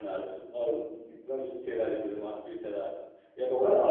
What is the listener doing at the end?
taking over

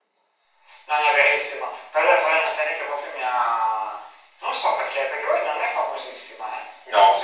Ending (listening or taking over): listening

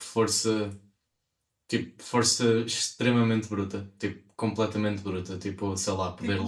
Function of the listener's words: listening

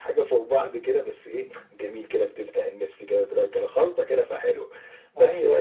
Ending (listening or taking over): listening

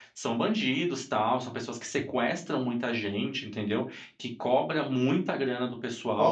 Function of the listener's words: taking over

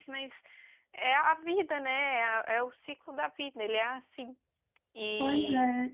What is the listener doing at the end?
taking over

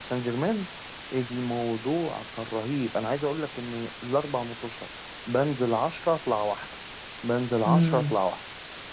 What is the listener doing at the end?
listening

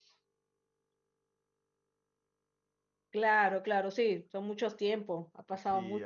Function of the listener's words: taking over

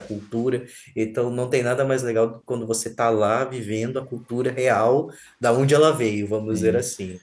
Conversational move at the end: taking over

